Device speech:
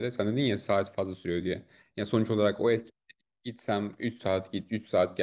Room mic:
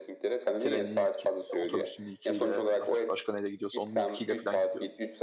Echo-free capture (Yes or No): No